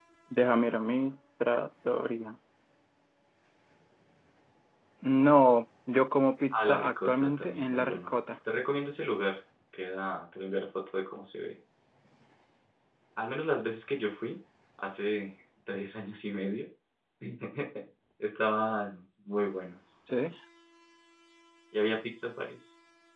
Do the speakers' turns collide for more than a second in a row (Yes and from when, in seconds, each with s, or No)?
Yes, from 6.5 s